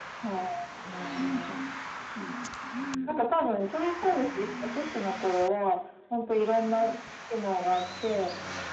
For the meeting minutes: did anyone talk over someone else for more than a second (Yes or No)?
Yes